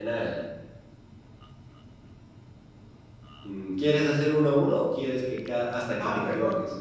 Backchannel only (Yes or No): No